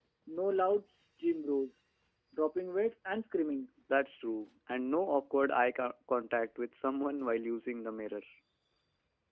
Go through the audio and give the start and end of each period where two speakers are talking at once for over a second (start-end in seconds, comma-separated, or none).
none